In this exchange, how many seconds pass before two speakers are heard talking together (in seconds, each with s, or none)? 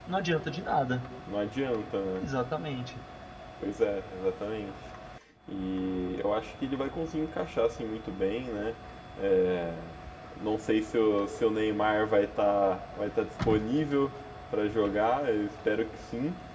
none